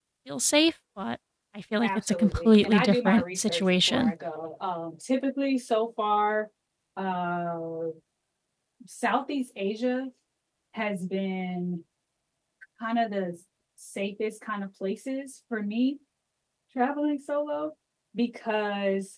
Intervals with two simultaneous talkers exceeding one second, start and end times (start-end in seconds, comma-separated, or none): 1.8-4.1